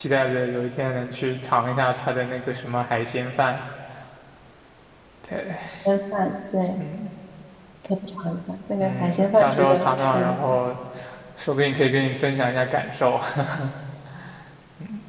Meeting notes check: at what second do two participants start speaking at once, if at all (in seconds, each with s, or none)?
8.8 s